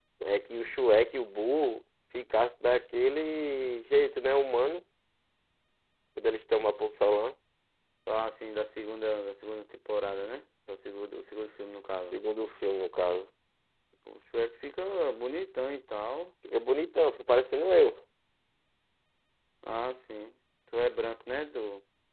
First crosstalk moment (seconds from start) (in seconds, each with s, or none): none